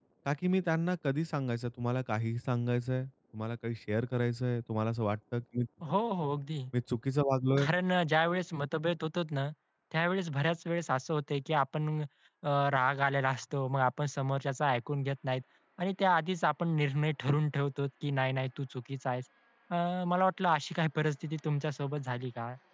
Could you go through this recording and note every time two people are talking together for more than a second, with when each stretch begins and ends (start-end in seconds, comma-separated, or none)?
none